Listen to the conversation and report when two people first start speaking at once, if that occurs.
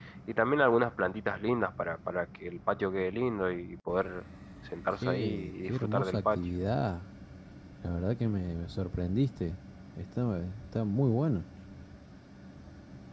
5 s

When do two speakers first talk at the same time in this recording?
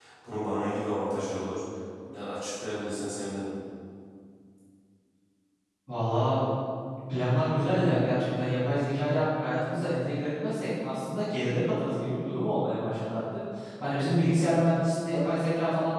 none

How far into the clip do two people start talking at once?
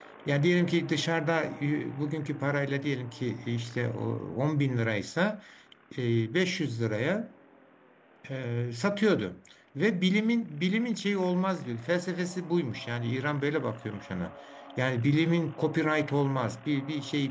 none

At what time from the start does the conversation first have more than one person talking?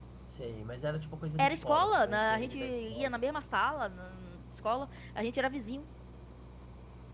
1 s

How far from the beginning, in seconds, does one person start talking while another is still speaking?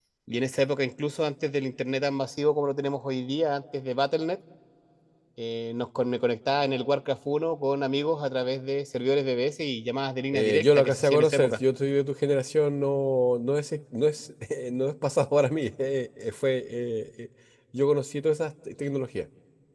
10 s

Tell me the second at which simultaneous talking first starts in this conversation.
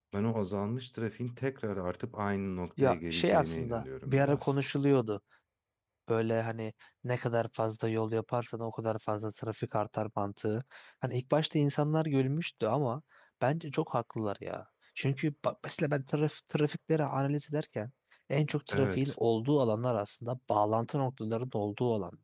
3 s

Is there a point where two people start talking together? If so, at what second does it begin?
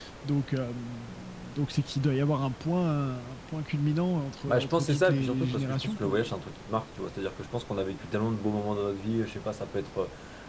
4 s

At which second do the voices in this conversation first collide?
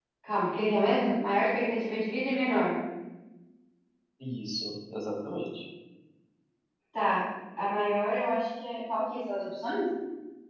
none

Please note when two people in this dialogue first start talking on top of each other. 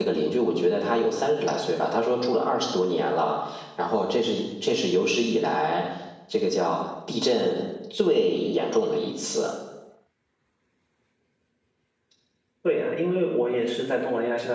none

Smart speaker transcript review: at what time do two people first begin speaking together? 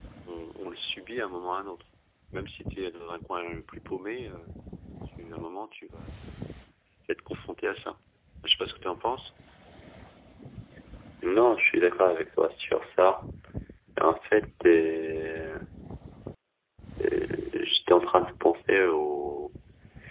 none

